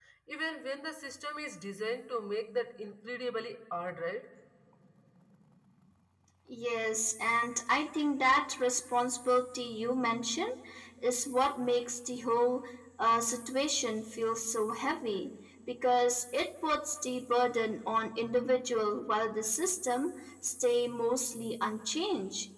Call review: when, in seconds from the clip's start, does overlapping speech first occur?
none

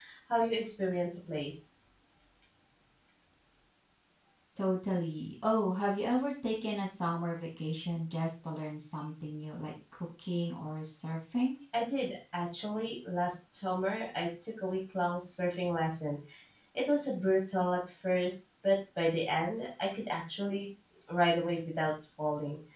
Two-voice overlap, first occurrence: none

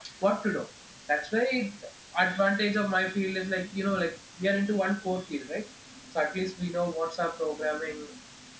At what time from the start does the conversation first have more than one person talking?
none

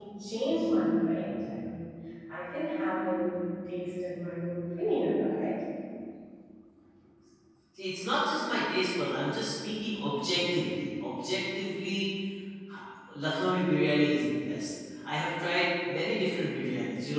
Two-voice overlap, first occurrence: none

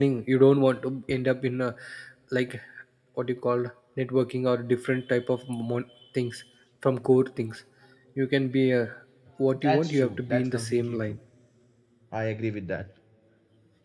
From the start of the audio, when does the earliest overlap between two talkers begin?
9.6 s

